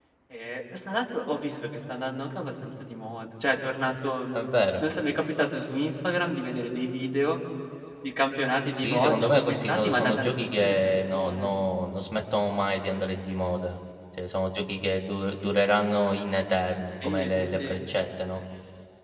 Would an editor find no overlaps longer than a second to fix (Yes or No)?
No